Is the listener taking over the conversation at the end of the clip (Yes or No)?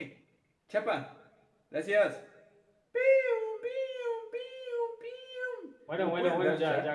Yes